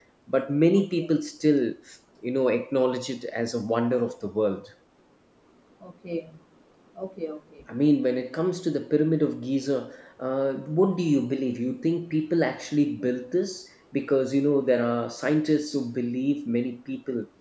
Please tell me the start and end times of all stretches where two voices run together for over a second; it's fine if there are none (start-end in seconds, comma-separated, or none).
none